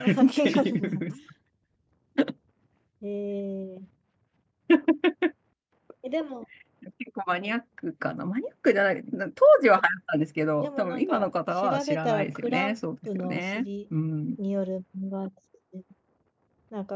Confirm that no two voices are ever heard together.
No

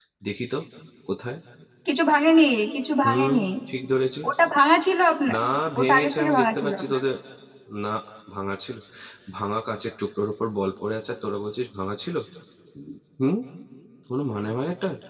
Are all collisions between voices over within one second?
No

